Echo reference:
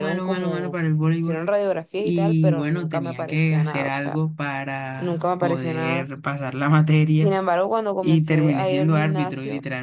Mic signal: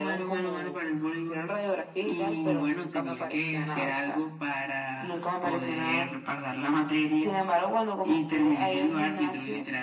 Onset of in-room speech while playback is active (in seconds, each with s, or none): none